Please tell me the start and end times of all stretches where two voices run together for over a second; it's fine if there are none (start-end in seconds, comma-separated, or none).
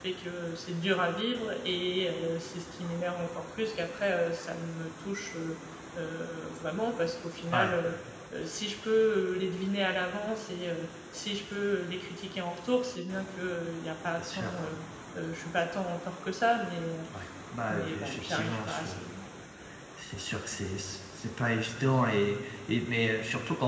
17.7-18.9